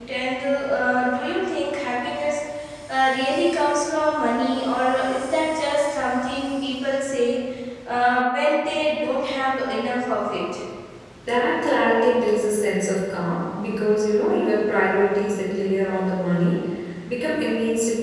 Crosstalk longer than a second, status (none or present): none